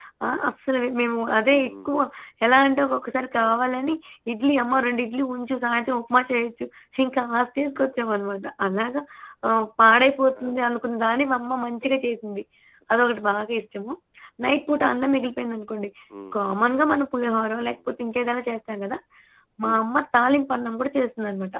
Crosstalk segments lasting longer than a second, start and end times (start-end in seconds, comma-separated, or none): none